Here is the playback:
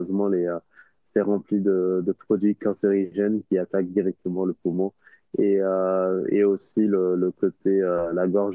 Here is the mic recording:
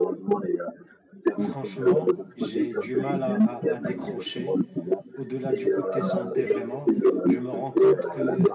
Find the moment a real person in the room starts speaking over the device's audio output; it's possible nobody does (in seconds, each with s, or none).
1.4 s